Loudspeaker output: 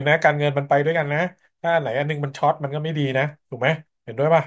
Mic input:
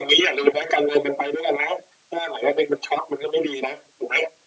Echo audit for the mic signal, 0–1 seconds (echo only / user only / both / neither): echo only